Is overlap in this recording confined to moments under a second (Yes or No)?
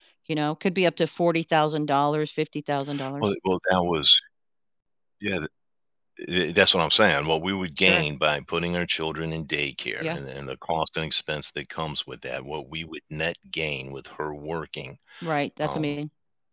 Yes